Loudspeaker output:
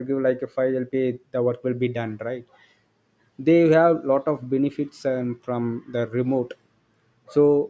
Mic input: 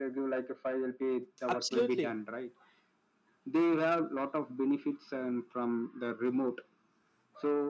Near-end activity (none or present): present